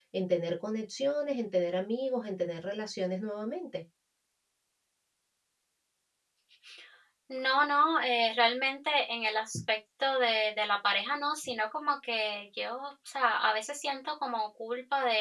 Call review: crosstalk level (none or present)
none